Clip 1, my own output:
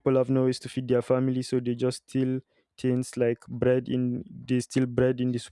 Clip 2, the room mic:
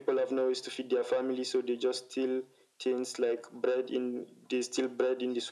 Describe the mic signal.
echo only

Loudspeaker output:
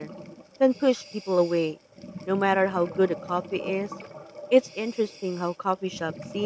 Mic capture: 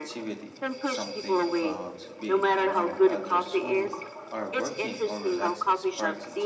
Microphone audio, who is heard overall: both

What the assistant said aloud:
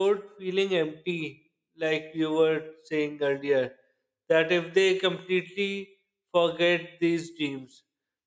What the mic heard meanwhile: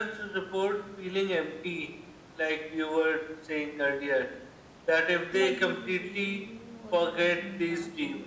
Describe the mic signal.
both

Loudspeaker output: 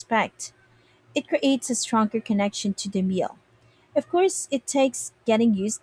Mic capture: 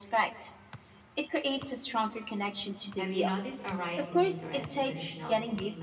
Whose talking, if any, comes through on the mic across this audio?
both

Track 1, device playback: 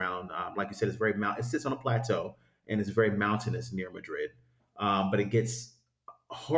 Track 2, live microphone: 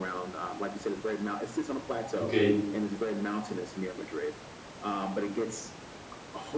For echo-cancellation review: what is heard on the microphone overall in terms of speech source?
both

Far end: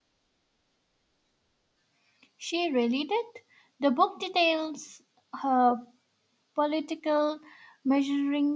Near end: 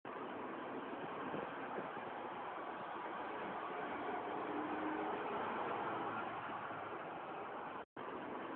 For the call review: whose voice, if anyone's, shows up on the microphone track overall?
neither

